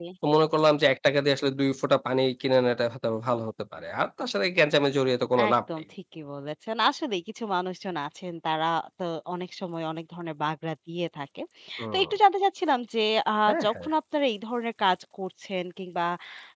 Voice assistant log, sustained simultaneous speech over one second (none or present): none